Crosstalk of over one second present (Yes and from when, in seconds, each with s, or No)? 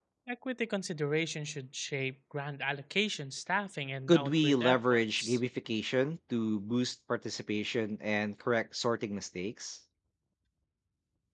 Yes, from 4.1 s